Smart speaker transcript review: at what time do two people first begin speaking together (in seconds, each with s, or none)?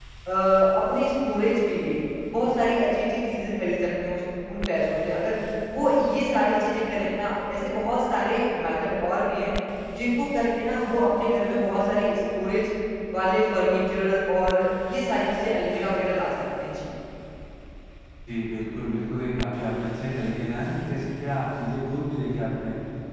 none